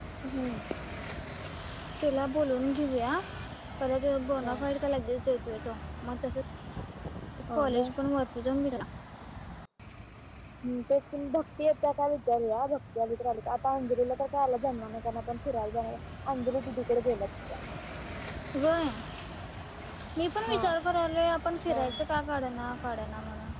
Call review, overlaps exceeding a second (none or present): none